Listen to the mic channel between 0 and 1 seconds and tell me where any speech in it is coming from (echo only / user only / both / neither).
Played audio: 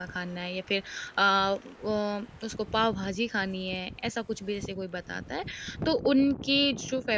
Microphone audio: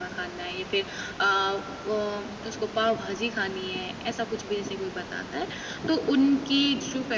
echo only